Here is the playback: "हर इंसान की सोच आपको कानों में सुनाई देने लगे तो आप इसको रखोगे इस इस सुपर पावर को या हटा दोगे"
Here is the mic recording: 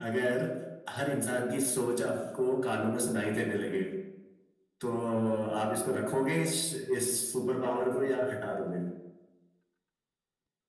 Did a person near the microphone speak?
No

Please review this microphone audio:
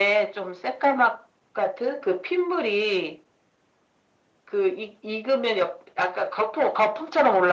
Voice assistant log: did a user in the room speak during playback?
No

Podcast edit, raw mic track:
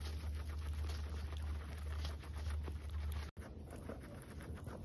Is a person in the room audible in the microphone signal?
No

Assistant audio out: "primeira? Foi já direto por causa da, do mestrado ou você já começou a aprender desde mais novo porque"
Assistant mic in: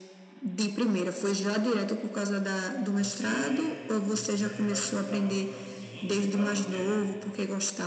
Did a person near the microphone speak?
Yes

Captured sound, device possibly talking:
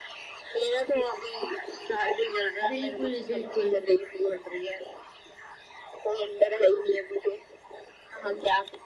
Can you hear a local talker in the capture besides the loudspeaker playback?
Yes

